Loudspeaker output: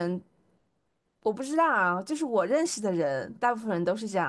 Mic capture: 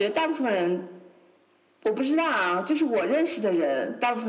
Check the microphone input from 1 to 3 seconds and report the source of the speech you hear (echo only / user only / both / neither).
echo only